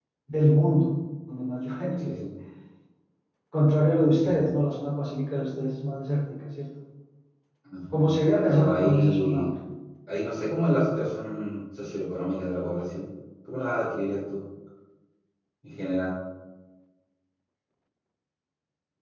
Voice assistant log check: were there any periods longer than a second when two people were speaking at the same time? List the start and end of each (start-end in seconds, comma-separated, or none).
7.9-9.5